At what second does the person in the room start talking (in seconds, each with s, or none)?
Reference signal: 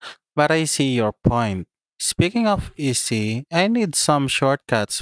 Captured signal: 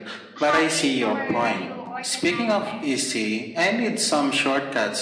0.4 s